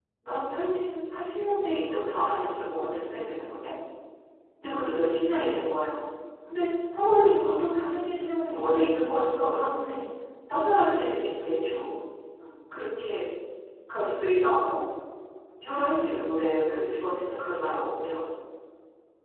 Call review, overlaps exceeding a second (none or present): present